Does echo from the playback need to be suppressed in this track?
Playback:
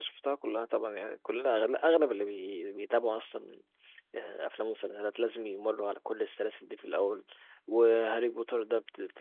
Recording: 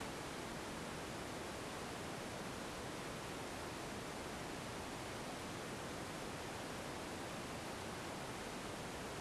No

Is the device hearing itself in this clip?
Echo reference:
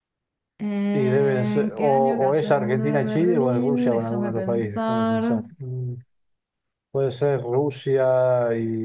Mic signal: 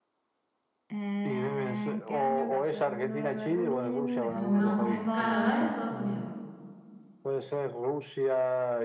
Yes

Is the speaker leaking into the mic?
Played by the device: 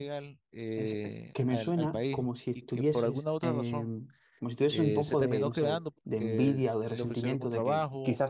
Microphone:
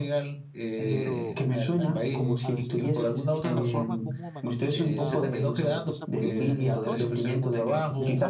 Yes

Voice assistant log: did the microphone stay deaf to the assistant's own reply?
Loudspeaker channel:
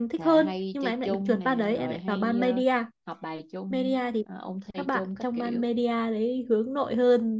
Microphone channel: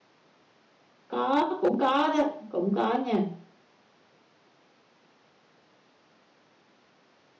Yes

